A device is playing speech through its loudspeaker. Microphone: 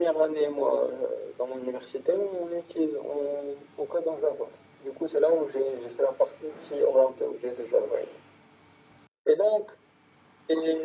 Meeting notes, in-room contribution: none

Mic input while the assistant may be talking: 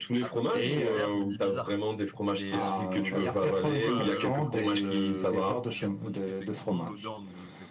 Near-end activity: present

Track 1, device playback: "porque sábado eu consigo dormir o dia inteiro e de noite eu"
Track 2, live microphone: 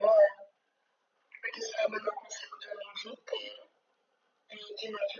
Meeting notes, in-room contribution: none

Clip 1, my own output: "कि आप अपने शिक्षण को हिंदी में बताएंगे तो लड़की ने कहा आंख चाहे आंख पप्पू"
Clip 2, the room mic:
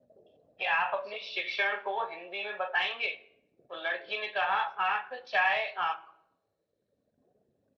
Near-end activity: none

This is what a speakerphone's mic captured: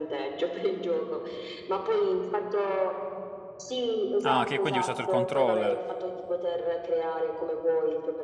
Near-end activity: present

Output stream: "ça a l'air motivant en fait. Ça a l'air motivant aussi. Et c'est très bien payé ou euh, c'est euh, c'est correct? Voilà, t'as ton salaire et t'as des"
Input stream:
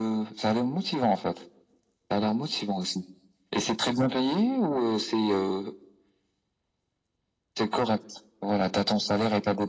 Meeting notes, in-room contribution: none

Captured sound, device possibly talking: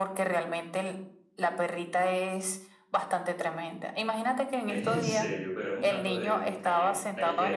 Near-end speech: present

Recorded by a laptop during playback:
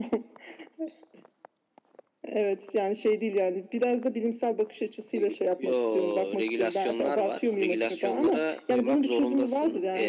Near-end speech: none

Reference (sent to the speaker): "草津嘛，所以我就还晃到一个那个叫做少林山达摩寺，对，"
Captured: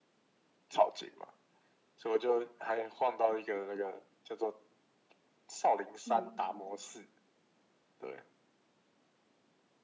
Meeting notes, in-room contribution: present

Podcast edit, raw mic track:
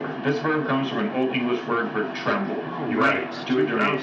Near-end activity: present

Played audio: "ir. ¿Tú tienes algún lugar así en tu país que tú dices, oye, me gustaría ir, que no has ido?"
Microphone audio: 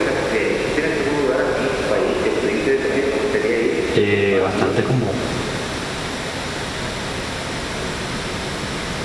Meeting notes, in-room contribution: present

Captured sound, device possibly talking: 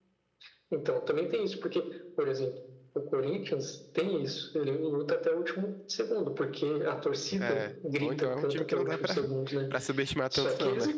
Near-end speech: present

